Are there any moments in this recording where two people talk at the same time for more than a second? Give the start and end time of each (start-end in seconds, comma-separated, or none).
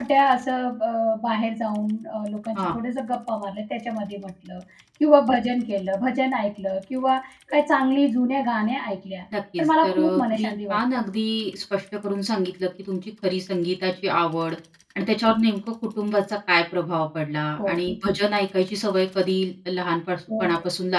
9.6-10.8